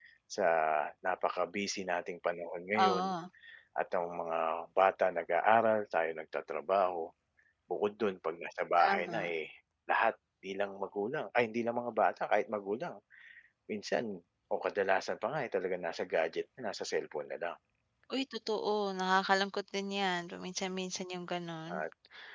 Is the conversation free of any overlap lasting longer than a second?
Yes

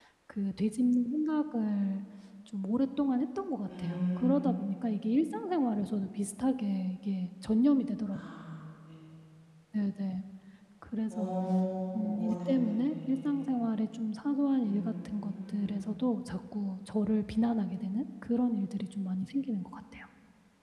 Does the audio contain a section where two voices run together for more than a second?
Yes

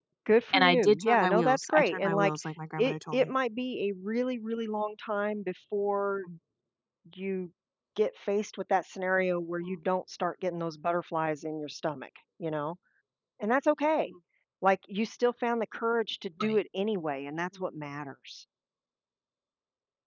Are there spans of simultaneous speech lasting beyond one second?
Yes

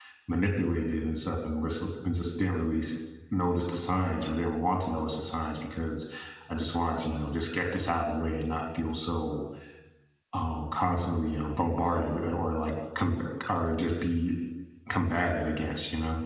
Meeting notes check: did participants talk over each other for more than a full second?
No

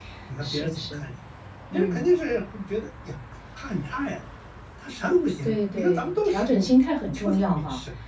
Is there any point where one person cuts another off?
Yes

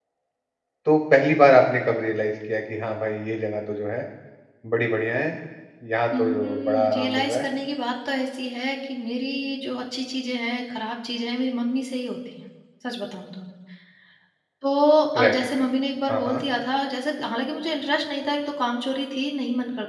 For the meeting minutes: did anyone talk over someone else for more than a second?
Yes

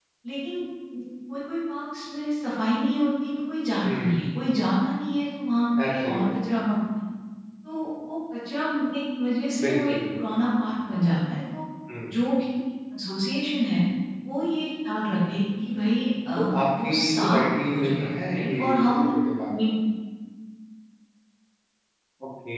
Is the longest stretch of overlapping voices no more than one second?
No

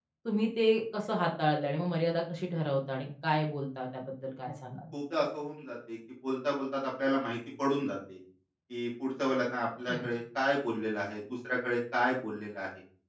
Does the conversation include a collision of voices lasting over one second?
No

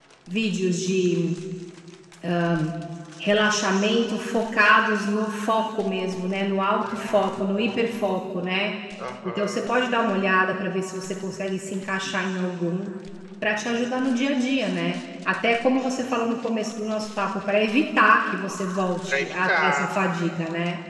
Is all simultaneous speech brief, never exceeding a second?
No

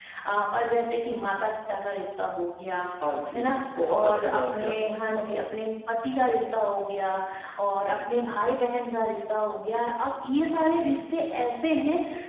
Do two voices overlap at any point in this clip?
Yes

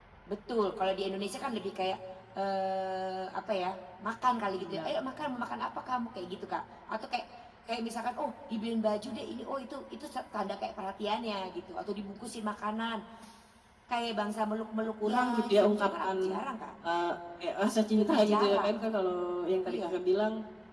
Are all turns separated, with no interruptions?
No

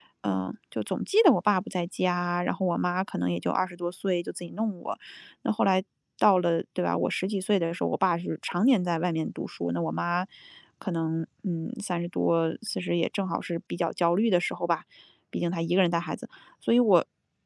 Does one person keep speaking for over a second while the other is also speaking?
No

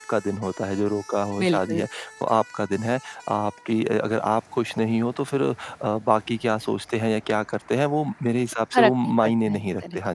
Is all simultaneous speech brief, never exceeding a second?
No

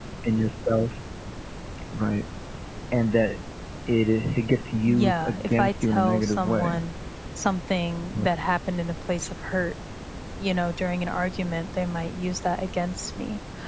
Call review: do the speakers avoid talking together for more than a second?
No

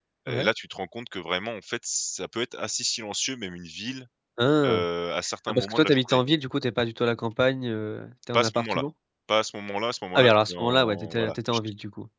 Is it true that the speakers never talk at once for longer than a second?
No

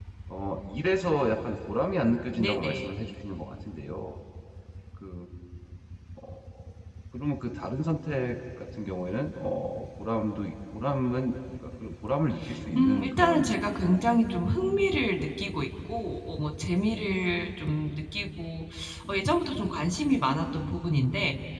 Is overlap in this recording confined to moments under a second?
No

